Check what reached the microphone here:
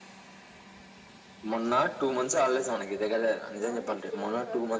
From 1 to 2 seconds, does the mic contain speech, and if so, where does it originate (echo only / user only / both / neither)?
echo only